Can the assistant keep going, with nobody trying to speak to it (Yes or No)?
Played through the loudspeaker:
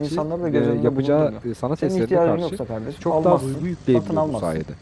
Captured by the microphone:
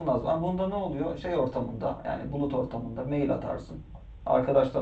No